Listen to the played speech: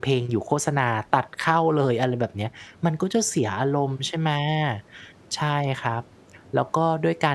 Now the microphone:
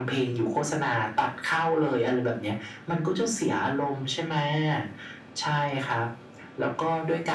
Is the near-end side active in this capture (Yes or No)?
No